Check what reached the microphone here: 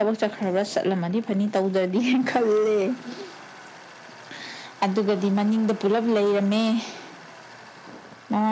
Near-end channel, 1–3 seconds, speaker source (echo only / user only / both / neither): echo only